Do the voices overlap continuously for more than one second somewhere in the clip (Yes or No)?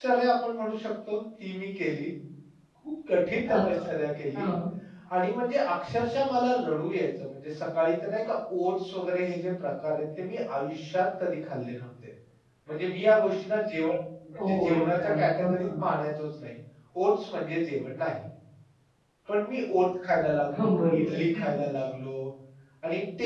Yes